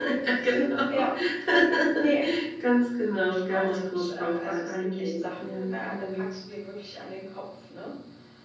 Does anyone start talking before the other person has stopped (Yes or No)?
Yes